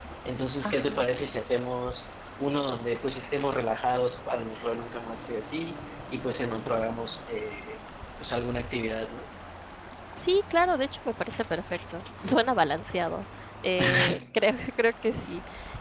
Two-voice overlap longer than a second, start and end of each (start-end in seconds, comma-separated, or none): none